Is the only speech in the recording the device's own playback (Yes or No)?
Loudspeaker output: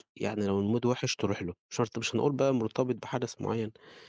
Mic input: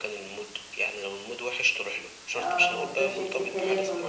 No